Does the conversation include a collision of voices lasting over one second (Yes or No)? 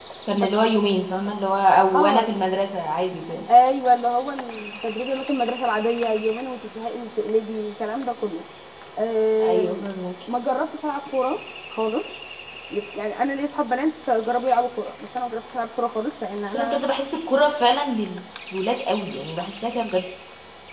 No